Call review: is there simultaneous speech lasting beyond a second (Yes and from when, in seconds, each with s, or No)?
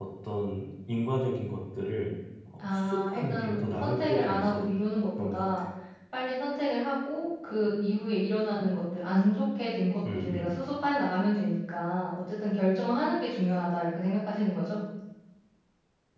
Yes, from 2.6 s